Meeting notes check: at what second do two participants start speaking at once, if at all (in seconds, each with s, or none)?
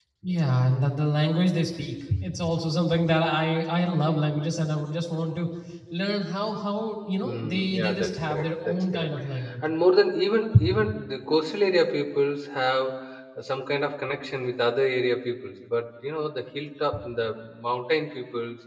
7.2 s